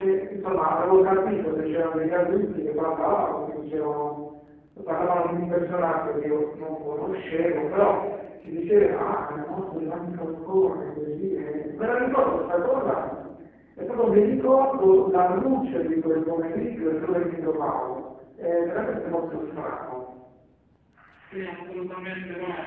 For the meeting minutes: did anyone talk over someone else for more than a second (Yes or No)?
No